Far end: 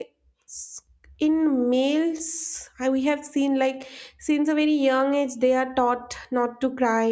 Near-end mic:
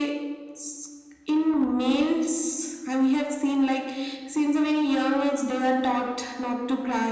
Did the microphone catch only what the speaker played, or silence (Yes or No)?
Yes